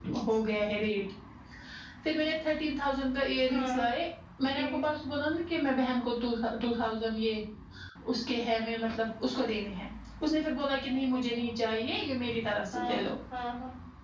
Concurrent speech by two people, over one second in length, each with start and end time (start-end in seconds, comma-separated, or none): none